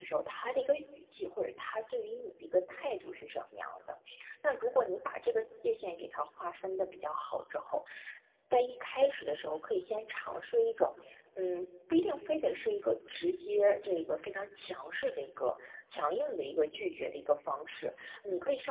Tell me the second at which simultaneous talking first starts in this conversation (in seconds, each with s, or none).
none